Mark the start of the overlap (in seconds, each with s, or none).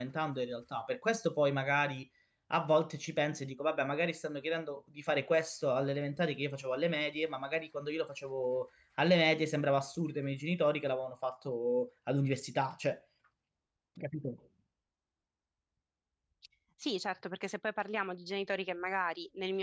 none